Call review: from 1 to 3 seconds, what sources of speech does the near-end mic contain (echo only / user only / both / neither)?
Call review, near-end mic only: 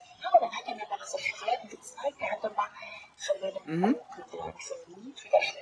echo only